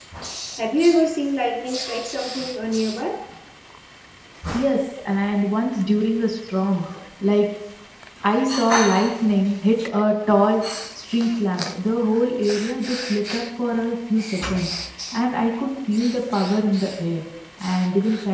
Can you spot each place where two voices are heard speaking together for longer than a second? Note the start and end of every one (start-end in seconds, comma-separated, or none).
none